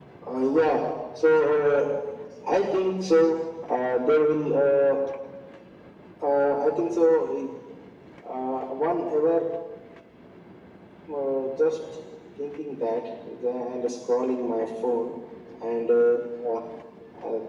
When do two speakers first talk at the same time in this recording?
none

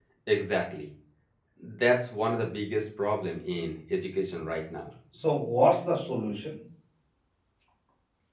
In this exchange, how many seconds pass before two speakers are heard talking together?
none

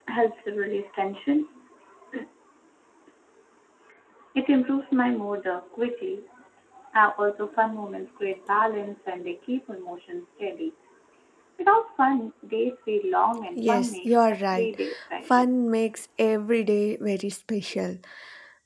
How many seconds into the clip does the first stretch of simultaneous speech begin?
14 s

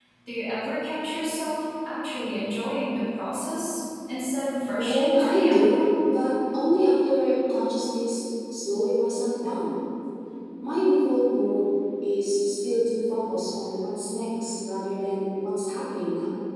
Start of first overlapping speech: 5 s

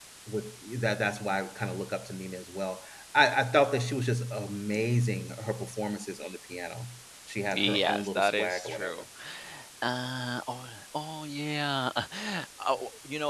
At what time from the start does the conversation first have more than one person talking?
8 s

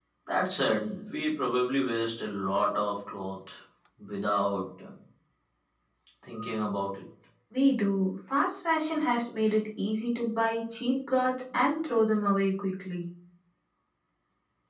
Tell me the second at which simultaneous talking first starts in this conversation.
none

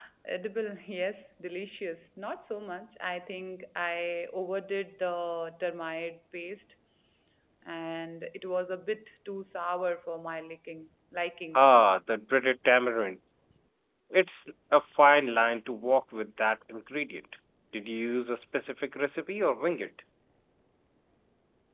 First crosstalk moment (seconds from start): none

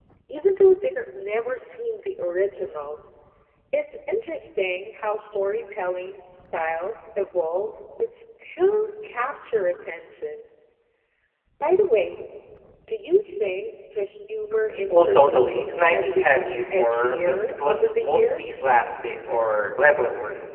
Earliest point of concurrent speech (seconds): 15 s

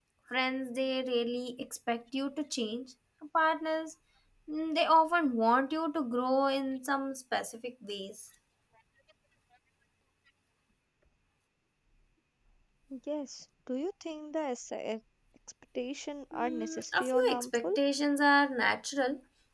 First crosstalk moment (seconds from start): 16 s

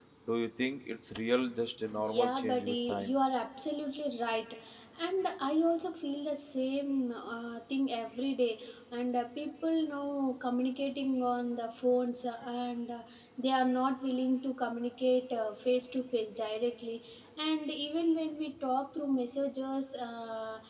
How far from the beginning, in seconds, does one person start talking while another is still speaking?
2 s

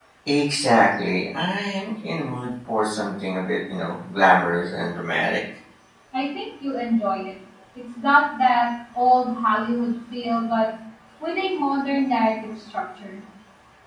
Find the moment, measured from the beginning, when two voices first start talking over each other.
none

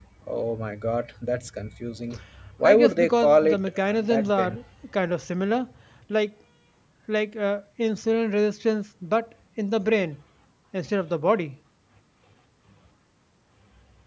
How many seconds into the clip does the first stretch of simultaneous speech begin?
3 s

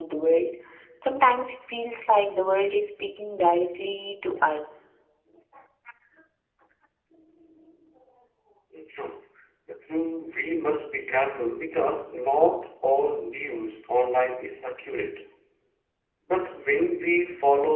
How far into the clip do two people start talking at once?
none

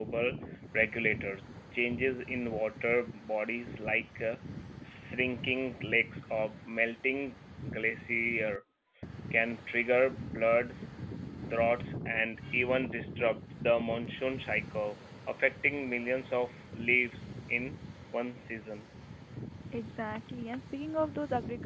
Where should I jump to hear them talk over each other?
none

